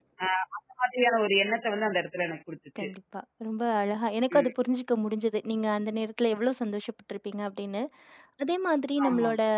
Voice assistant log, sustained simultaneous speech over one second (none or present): none